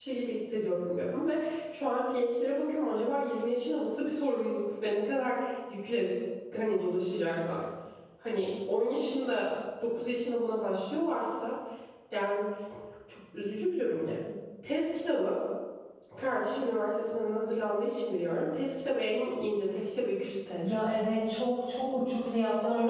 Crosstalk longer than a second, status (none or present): none